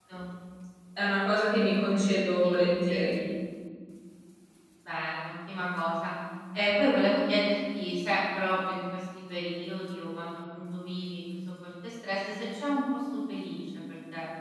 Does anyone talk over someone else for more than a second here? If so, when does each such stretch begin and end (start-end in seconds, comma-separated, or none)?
1.7-3.1